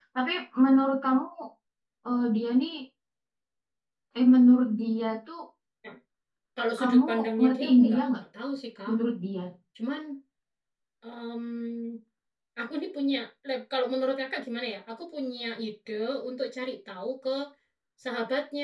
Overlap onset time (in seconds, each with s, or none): 6.8 s